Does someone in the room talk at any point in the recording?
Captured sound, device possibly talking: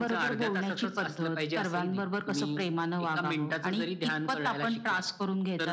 No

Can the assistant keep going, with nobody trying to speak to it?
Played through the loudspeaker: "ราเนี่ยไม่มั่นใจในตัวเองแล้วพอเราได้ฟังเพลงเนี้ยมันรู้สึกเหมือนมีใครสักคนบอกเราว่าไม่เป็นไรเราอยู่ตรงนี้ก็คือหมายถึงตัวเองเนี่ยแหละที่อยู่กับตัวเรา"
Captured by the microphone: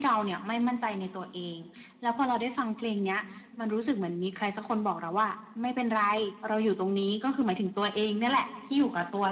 Yes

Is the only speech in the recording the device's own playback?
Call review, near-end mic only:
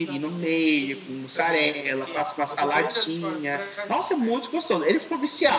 No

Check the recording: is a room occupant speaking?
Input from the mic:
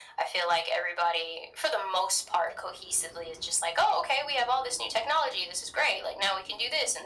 No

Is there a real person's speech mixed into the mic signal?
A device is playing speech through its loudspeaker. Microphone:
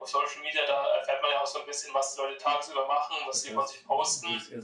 Yes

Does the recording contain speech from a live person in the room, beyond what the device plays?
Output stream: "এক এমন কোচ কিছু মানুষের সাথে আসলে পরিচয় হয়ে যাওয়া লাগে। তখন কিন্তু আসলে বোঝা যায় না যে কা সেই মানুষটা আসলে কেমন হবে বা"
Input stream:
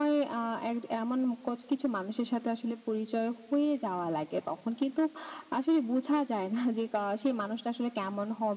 No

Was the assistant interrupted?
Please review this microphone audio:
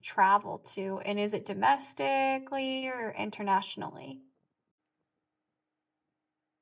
Yes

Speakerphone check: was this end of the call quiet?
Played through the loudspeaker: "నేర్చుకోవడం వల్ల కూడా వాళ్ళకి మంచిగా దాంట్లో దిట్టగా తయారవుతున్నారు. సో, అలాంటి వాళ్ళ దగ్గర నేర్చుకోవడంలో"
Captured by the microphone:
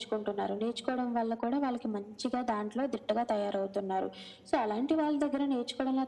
Yes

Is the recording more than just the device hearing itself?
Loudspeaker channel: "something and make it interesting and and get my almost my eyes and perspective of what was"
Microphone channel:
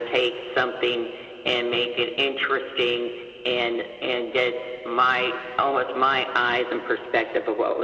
No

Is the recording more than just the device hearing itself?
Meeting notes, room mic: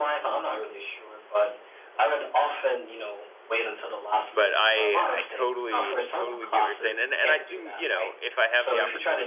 Yes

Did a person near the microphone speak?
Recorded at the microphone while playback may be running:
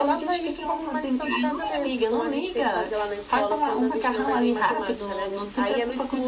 No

